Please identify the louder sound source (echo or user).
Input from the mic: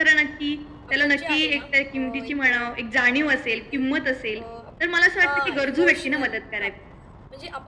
echo